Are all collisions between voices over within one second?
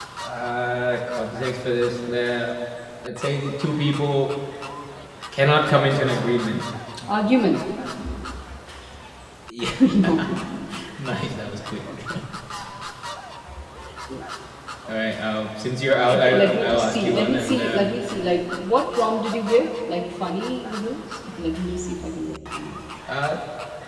No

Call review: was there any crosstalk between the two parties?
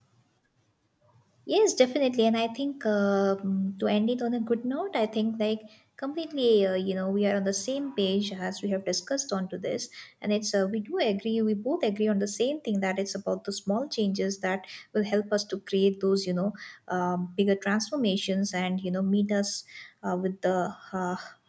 No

